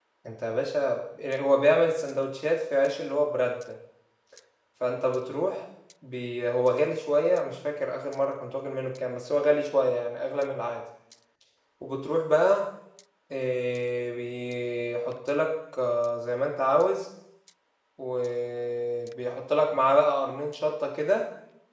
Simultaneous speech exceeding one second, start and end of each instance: none

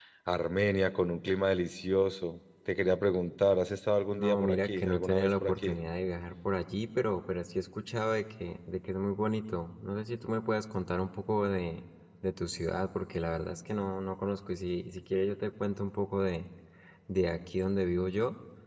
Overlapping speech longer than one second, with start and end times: 4.1-5.8

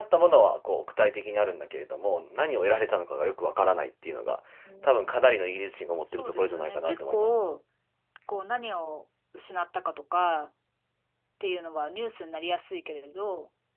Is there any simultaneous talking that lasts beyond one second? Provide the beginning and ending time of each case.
6.1-7.5

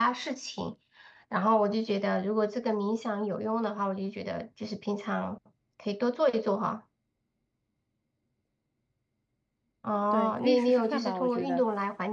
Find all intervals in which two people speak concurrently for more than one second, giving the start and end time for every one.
10.1-11.6

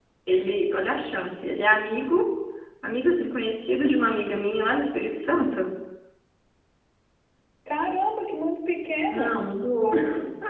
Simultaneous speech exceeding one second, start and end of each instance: none

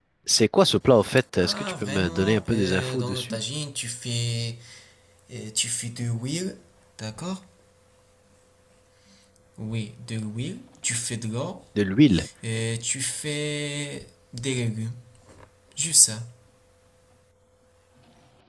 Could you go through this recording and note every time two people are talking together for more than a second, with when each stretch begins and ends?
1.4-3.4

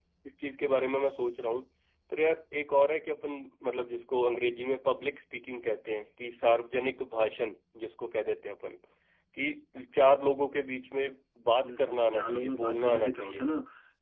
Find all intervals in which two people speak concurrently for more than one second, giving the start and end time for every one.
11.6-13.5

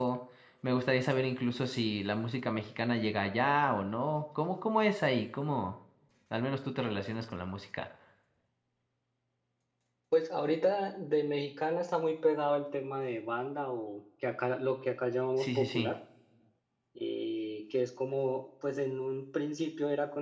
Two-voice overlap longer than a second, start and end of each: none

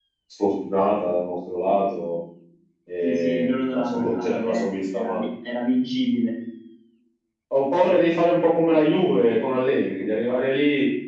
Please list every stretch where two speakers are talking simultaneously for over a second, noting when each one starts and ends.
3.0-5.2

